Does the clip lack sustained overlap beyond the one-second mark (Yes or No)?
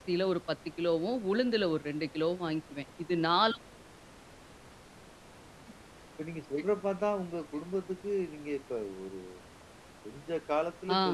Yes